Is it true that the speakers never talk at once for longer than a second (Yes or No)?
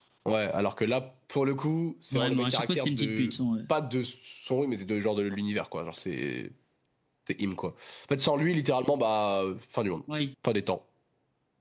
No